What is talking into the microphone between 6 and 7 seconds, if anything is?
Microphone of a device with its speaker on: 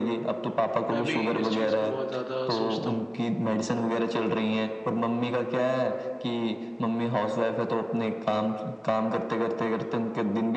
echo only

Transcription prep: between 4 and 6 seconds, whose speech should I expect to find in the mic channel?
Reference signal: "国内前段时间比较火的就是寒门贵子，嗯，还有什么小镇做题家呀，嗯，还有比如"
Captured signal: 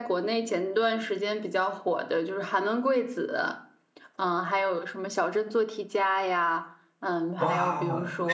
echo only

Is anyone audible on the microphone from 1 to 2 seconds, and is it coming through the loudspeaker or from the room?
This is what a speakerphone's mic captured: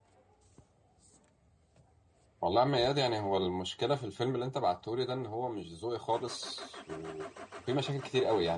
neither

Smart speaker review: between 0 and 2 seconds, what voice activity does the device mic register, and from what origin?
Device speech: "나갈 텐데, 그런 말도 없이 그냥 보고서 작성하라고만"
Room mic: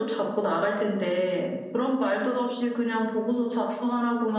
echo only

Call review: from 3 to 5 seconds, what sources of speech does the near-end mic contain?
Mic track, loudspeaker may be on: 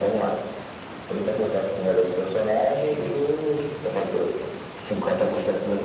echo only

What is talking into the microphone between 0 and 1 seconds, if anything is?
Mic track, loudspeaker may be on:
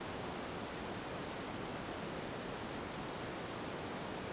neither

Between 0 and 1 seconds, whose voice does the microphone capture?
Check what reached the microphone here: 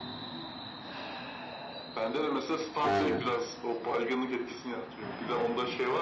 neither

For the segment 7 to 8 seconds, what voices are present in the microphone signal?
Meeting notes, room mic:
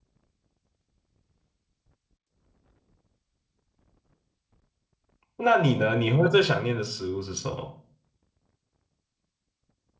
user only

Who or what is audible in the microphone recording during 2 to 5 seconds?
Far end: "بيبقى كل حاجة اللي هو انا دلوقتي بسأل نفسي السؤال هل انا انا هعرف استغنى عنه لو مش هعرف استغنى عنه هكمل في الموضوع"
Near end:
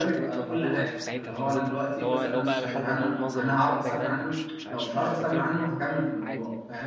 both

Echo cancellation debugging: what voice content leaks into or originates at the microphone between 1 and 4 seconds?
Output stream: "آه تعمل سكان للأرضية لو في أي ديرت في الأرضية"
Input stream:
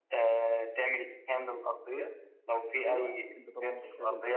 both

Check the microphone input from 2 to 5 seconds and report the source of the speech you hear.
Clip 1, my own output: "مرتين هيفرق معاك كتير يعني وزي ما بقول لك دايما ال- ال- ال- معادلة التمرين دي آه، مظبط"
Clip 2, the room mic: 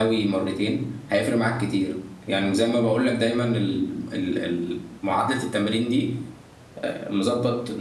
echo only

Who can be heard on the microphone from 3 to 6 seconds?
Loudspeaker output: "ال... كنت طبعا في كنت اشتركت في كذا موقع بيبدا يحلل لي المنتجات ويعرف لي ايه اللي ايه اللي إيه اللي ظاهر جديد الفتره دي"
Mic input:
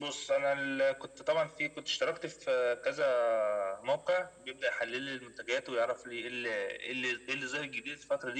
echo only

